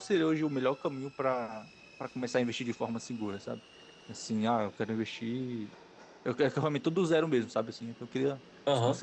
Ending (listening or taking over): taking over